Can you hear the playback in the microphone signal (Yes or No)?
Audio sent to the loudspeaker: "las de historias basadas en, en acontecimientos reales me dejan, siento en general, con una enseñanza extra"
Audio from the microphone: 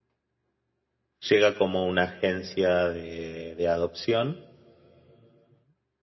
No